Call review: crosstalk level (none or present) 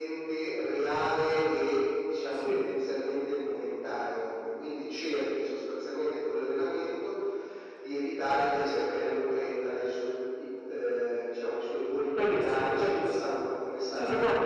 present